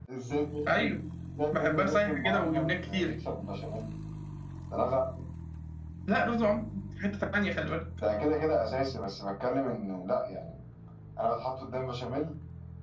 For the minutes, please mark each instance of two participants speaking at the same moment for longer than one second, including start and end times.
1.6-3.1

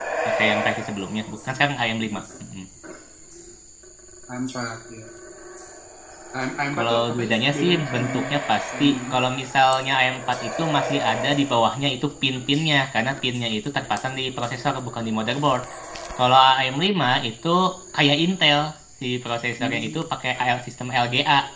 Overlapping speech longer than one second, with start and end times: 6.8-8.2

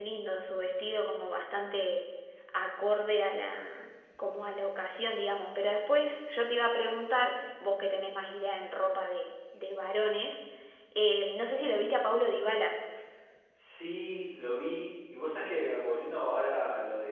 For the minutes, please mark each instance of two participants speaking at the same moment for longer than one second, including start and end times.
none

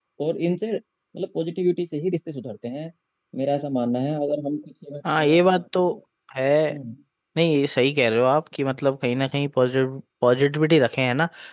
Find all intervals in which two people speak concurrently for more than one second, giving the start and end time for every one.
none

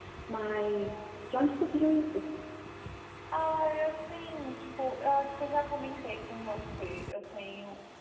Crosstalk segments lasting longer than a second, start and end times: none

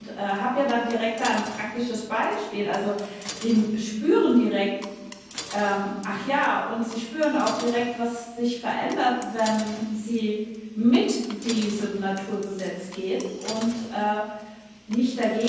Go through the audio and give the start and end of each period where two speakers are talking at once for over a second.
none

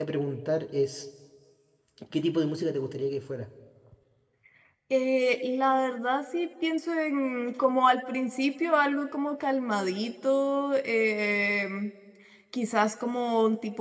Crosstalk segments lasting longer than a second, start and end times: none

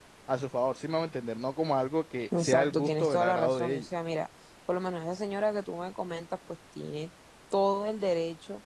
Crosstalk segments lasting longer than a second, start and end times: 2.4-3.9

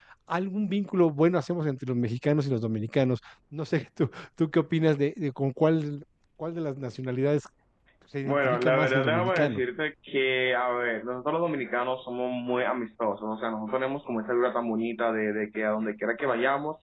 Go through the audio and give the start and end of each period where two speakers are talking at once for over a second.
8.3-9.6

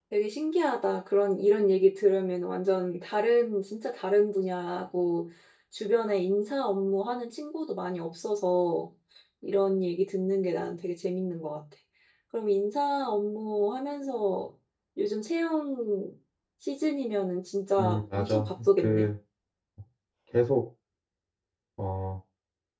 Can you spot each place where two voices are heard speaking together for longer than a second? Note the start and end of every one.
17.8-19.1

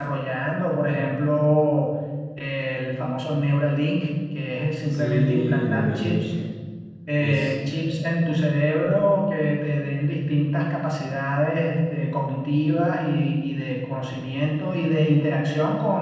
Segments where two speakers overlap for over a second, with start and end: 4.9-6.2

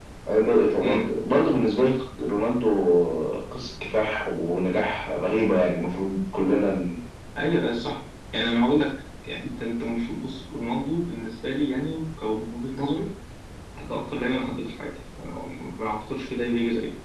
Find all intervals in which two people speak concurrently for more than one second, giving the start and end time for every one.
none

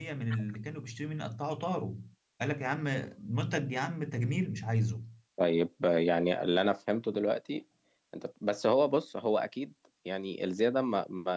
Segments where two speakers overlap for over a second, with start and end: none

